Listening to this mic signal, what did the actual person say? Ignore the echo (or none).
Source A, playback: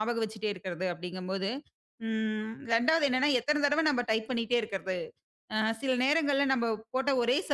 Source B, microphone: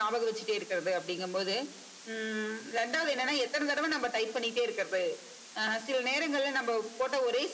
none